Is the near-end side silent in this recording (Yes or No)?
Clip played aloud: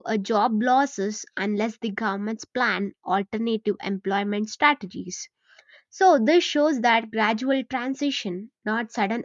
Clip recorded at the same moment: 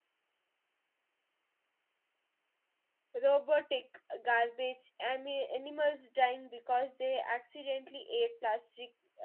No